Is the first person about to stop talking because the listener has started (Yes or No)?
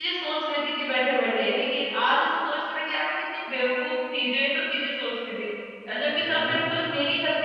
No